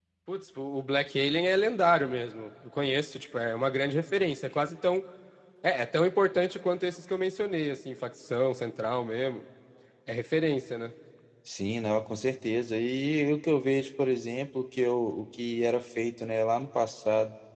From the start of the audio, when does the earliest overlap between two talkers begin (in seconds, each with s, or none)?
none